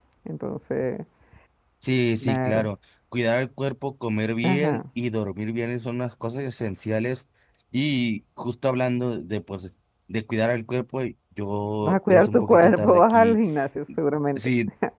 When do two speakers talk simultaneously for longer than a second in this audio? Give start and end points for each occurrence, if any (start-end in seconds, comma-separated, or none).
11.8-13.4